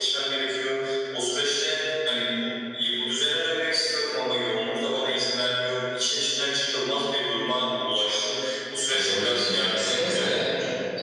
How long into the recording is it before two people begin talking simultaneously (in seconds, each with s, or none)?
8.9 s